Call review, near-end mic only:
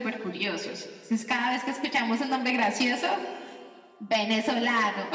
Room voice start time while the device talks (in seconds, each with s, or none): none